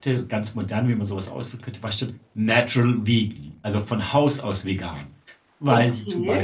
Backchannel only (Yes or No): Yes